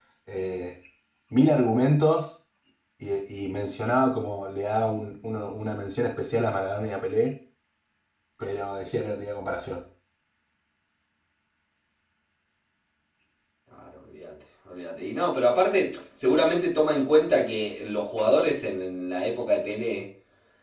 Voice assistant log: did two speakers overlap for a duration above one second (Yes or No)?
No